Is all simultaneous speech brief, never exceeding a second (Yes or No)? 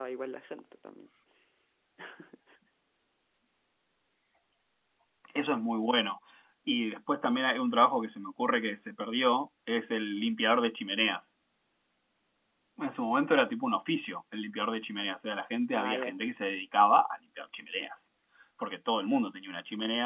Yes